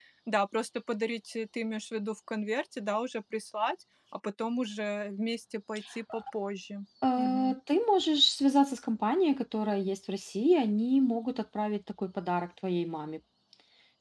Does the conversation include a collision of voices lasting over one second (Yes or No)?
No